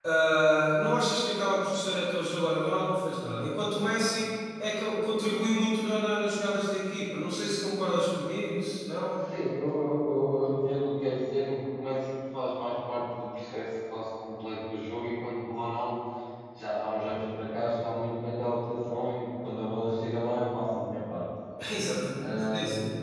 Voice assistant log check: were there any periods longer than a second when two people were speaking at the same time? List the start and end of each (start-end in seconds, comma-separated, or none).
none